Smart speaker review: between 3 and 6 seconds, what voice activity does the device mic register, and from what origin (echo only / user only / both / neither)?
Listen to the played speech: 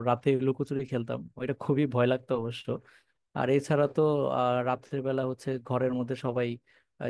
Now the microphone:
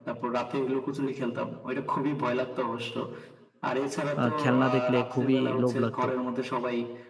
both